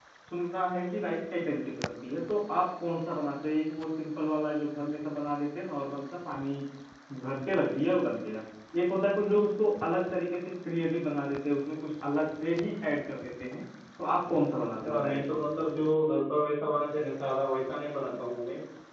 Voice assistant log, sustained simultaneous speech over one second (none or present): none